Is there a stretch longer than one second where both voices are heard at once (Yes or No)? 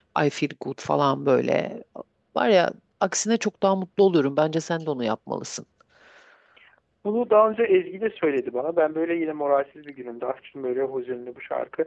No